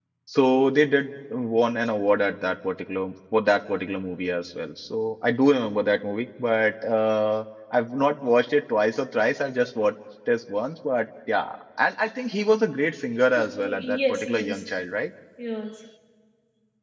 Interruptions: present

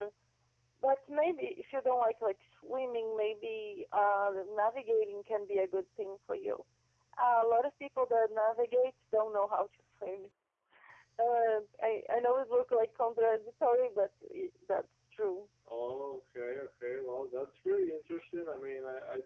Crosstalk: none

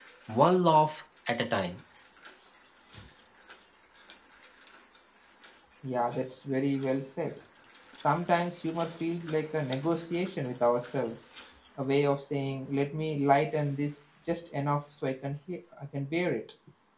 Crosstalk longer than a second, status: none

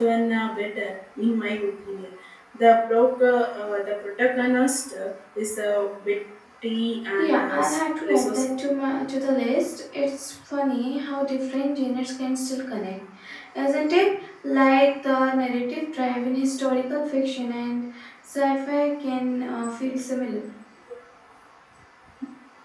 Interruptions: present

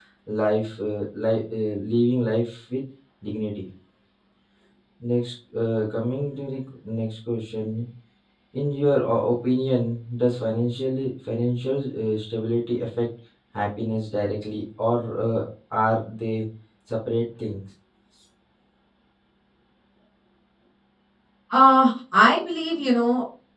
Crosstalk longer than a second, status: none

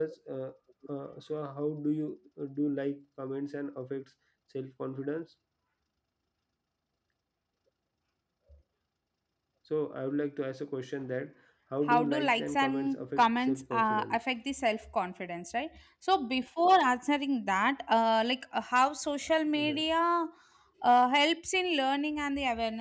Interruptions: present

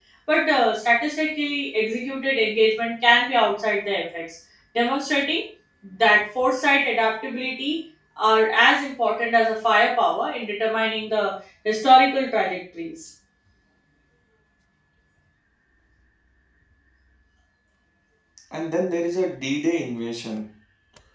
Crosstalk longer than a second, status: none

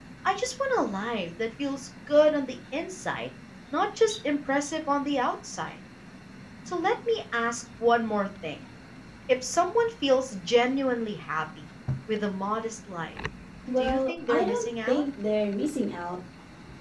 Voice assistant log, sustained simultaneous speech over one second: present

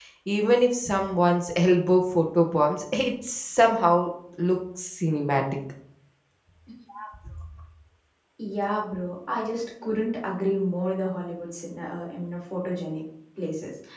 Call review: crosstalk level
none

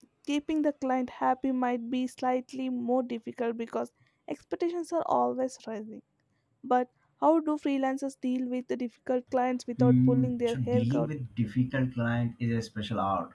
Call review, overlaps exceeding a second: present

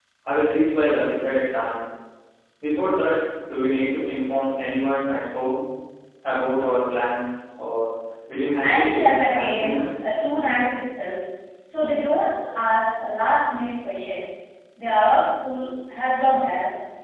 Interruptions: present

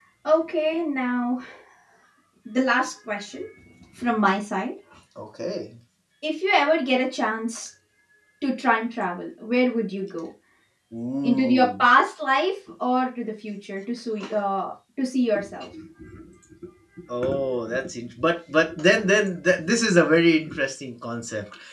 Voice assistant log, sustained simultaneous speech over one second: none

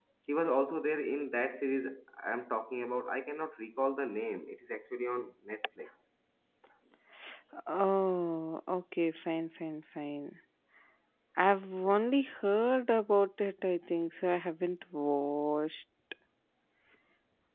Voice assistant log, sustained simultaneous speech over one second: none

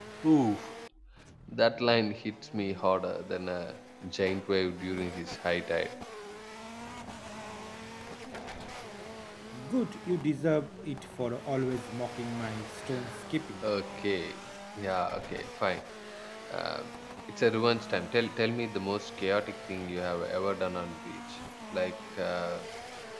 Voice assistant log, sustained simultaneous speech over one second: none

